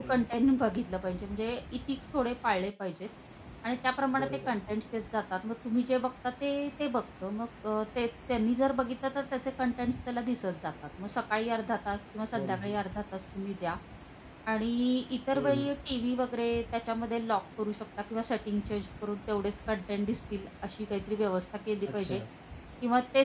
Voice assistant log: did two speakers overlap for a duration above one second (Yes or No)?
No